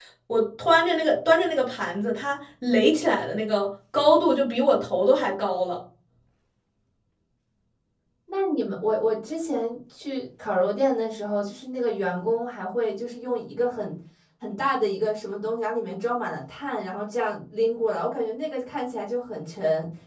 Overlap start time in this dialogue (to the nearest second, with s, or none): none